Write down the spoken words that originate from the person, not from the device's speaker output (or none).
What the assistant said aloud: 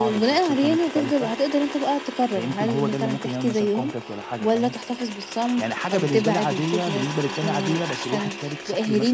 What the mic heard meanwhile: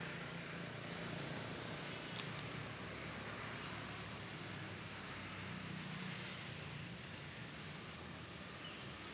none